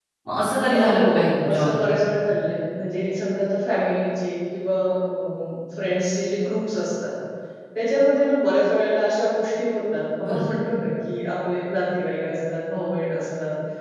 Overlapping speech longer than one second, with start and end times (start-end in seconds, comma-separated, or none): 0.7-1.9